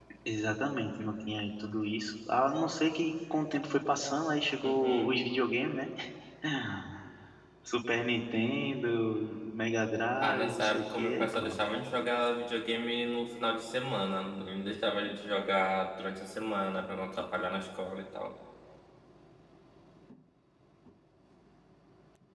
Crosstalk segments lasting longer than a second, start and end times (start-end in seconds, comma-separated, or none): 10.2-11.6